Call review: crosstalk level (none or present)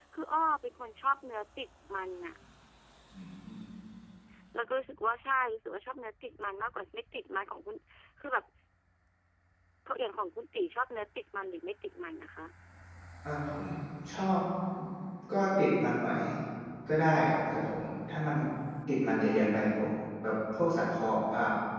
none